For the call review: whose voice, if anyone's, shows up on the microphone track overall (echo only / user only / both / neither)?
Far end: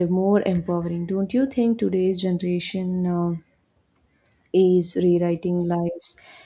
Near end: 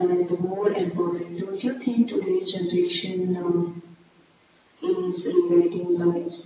echo only